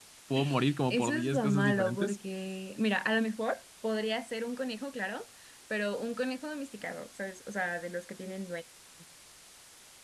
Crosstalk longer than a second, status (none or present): present